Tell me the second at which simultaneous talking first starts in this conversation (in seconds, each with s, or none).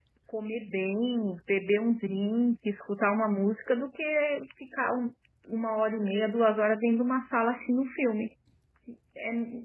none